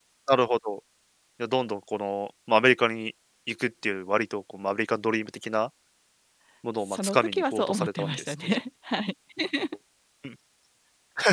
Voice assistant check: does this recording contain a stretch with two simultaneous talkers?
Yes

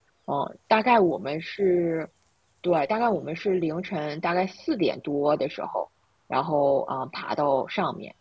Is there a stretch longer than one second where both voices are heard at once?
No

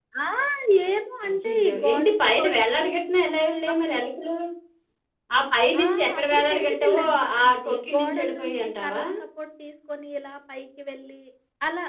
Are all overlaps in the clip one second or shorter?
No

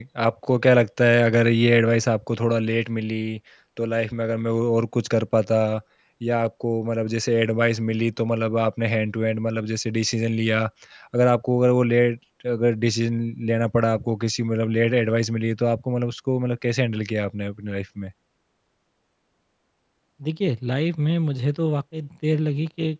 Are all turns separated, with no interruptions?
Yes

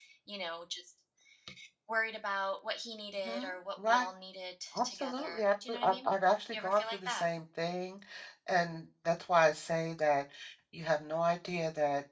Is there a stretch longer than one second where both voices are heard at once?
Yes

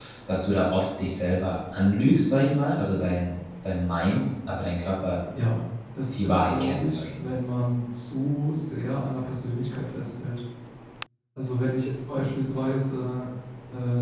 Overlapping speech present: Yes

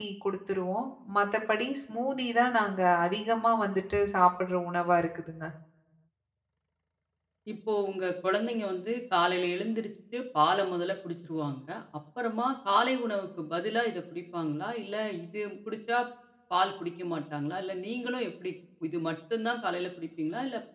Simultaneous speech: No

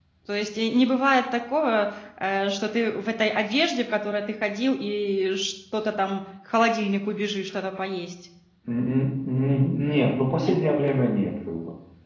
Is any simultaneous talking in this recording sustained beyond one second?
No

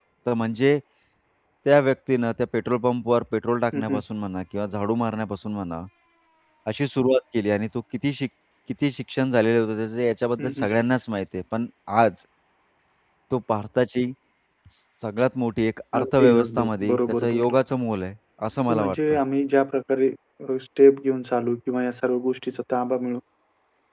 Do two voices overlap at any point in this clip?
Yes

